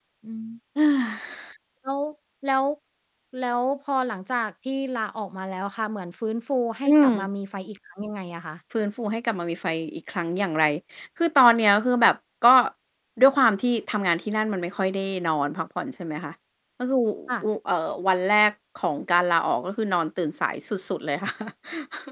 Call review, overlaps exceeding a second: none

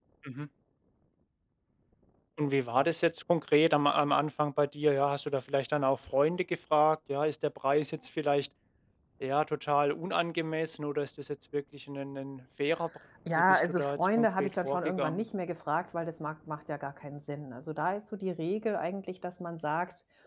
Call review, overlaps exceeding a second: present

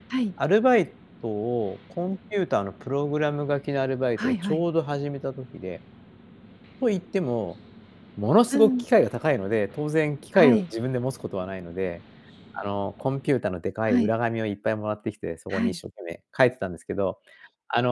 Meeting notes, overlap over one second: none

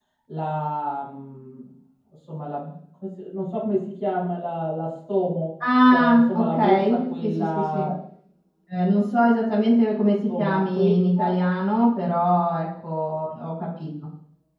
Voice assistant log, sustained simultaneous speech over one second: present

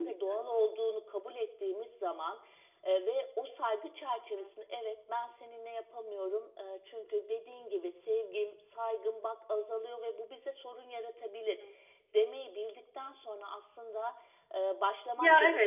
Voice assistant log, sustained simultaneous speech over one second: none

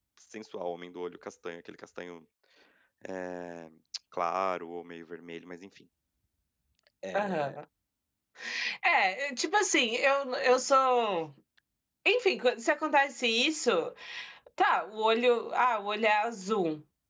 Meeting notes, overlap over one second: none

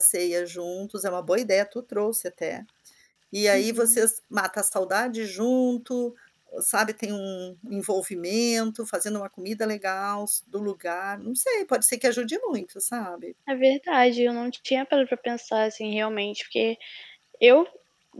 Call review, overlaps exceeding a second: none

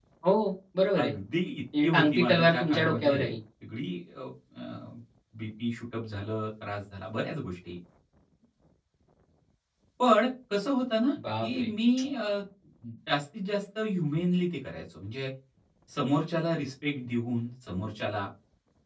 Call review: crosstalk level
present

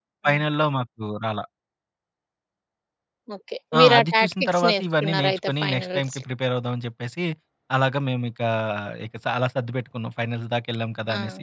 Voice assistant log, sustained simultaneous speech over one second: present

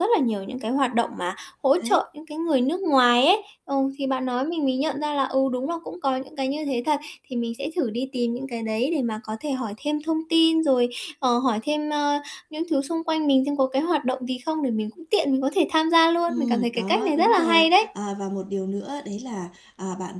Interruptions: present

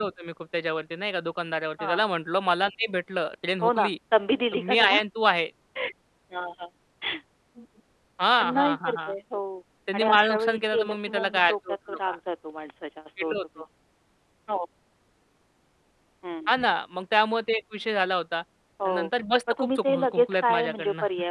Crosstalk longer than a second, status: present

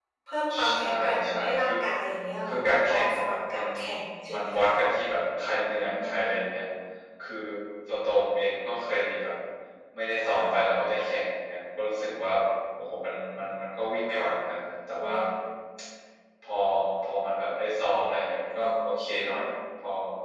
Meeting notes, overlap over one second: present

